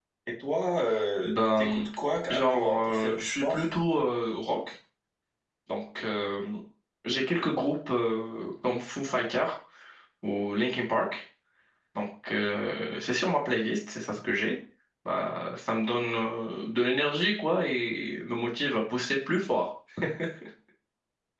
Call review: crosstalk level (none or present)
present